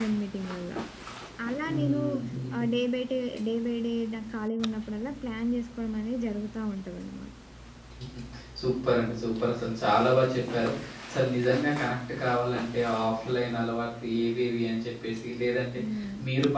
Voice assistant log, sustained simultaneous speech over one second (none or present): none